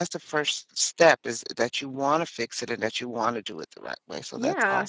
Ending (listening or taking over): taking over